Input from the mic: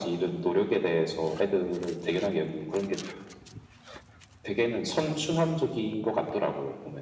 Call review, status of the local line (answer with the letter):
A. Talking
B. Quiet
B